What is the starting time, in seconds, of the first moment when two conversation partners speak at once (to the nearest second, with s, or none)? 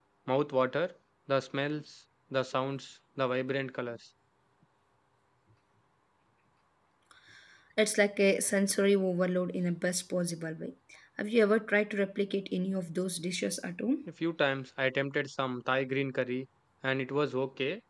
none